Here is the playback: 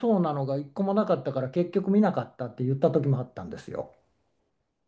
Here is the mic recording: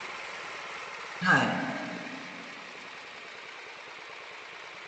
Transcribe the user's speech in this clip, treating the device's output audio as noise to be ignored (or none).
はい。